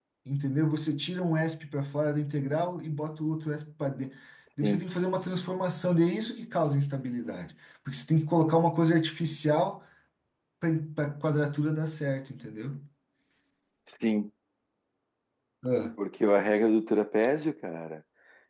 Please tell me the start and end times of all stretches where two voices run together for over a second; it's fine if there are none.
none

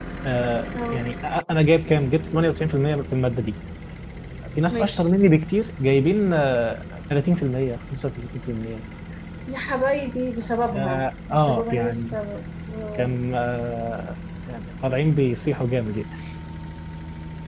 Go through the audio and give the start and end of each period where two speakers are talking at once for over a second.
10.8-12.2

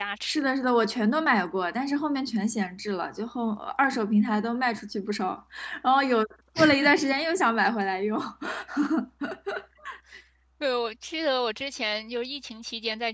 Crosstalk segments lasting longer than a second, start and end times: none

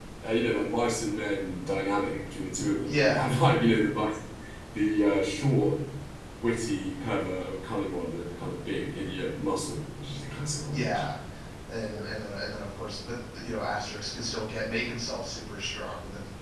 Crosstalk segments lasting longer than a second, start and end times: none

